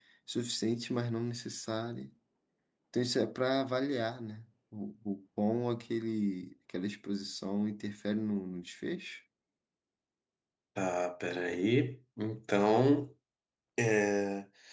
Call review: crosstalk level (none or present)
none